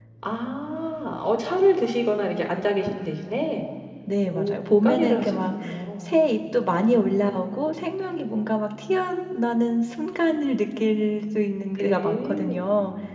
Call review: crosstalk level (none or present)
present